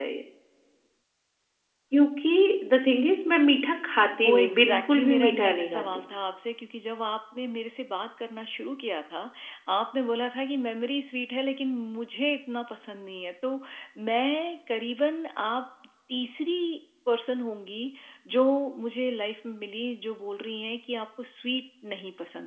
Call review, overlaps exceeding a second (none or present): present